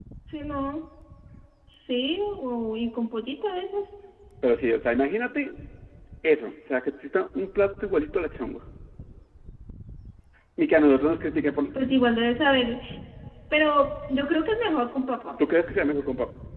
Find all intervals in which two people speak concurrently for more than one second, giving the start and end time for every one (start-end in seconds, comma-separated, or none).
none